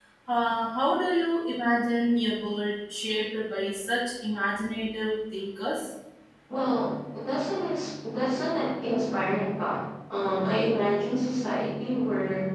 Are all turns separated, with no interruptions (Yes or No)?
Yes